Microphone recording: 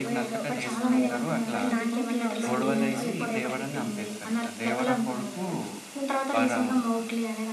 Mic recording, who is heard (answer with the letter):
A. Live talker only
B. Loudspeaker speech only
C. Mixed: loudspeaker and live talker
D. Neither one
C